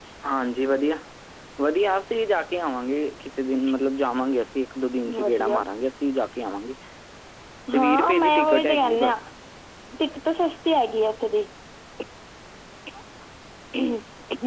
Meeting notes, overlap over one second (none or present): present